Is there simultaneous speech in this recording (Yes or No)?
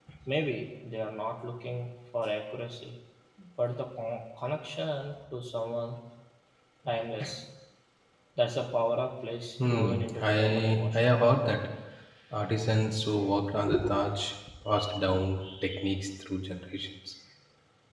Yes